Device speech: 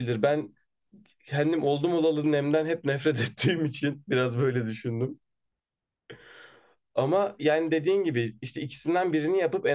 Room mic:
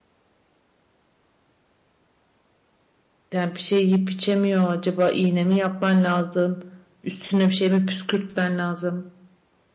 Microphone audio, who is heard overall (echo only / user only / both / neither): user only